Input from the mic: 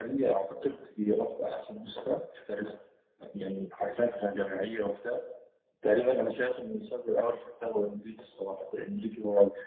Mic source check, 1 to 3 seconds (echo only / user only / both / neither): echo only